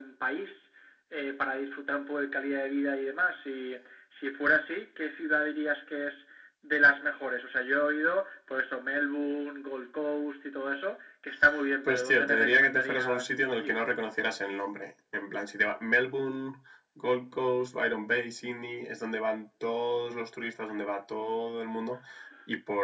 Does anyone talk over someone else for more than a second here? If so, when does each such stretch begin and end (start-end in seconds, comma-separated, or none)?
11.8-13.8